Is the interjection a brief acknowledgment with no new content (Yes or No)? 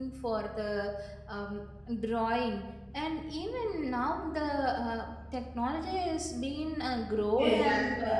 No